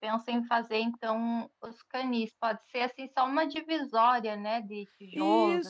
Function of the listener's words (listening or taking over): taking over